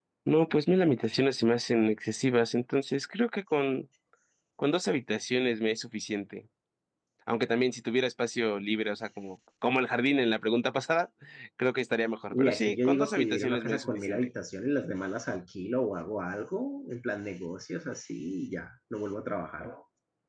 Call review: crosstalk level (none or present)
present